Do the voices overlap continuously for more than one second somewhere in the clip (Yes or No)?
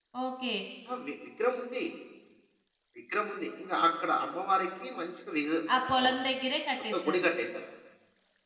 No